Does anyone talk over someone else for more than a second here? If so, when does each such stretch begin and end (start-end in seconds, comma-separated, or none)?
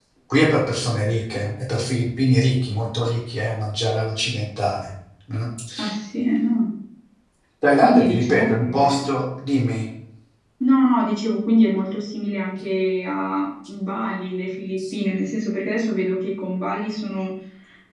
7.8-9.1